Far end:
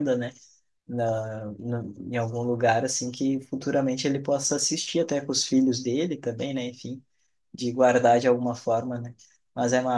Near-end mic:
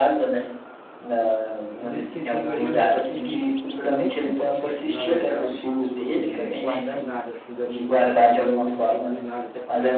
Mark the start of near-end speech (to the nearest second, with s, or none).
2 s